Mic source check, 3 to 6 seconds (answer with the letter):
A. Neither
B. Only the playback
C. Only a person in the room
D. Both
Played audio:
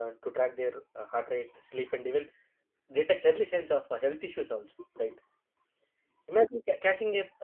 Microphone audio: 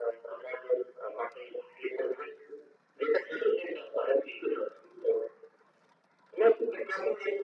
B